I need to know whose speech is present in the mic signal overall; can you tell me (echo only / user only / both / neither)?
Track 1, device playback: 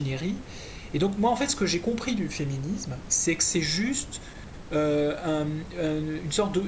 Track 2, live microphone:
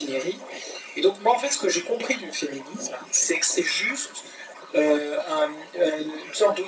echo only